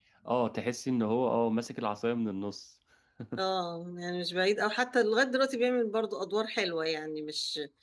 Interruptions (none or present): none